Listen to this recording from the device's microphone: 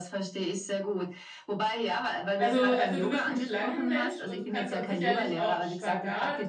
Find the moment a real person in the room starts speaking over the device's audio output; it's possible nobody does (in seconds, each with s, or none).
2.4 s